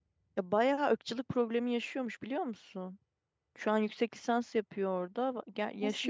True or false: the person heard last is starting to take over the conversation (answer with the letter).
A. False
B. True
A